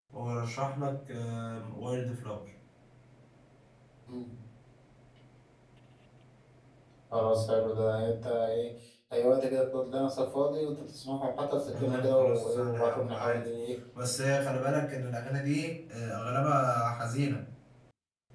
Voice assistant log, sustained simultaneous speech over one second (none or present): present